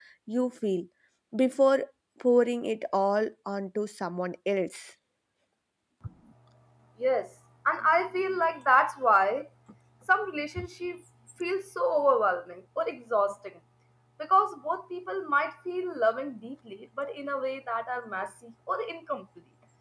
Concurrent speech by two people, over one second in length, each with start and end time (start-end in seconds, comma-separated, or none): none